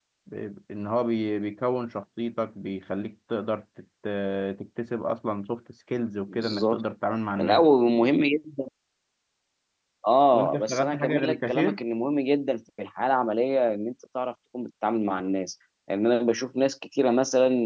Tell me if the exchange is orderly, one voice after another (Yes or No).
No